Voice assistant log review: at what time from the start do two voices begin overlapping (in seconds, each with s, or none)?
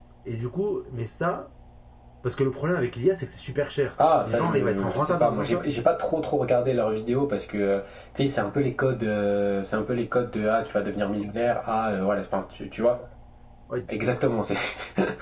4.0 s